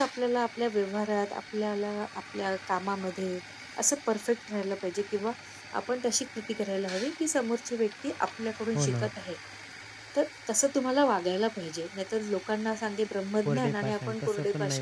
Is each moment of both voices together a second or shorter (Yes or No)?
No